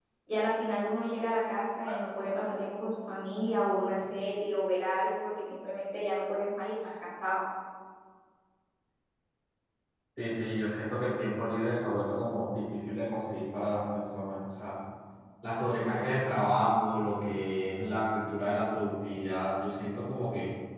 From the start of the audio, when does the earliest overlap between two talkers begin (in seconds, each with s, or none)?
none